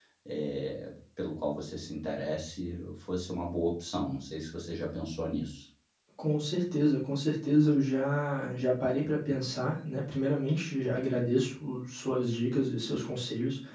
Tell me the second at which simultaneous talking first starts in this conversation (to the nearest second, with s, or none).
none